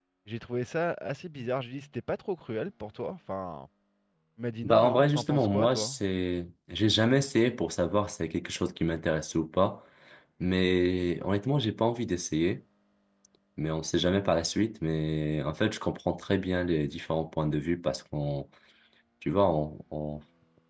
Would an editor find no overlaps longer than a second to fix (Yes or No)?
No